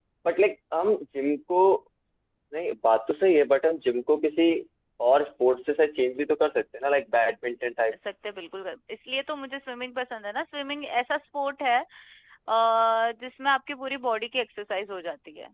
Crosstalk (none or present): none